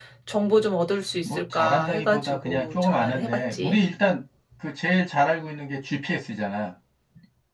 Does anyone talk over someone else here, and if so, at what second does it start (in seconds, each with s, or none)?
1.2 s